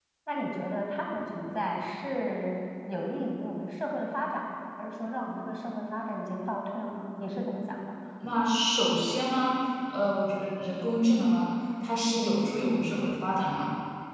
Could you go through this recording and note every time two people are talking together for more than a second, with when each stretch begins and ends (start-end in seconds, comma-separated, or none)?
none